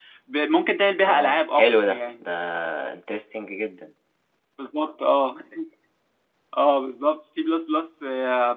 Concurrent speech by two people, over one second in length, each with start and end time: 1.0-2.2

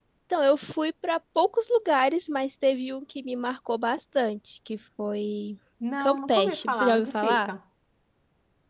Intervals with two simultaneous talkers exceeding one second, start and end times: 6.0-7.5

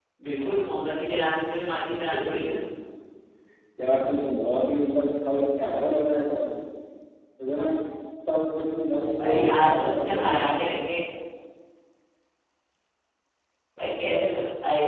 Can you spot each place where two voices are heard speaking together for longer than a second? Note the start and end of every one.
9.2-10.5

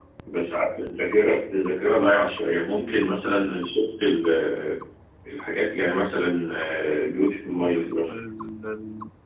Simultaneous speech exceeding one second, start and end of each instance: none

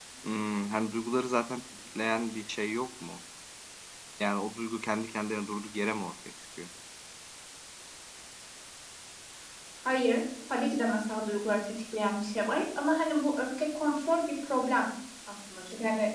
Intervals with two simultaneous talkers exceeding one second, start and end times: none

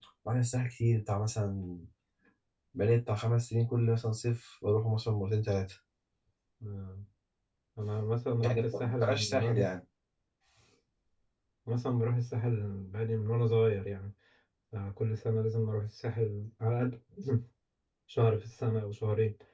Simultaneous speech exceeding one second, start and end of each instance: 8.4-9.7

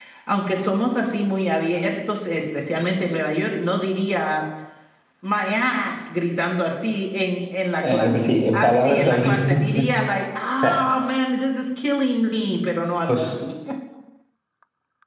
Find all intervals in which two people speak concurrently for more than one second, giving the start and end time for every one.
7.8-9.9

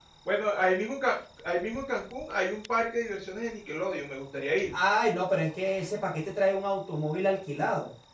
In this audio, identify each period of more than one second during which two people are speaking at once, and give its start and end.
none

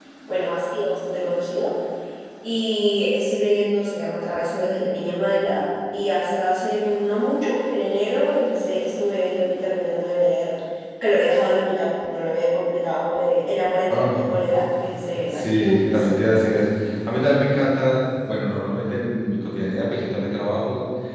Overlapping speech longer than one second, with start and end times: 15.3-16.5

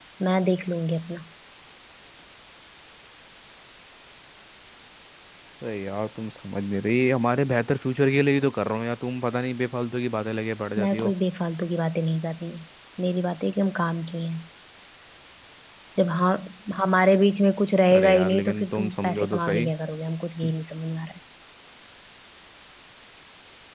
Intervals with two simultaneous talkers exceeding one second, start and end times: 18.0-19.6

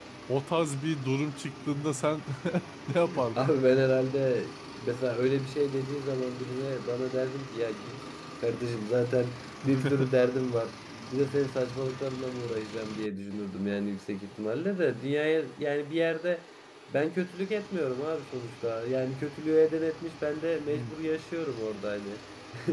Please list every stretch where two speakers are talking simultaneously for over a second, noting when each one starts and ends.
none

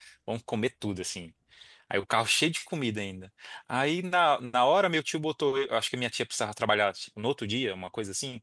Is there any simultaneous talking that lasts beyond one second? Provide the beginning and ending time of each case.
none

